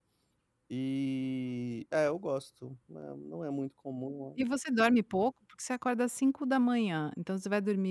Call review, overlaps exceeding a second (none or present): none